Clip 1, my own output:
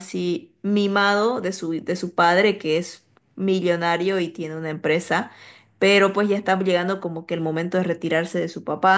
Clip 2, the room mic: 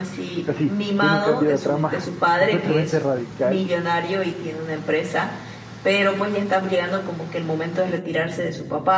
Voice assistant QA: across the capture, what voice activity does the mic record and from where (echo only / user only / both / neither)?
both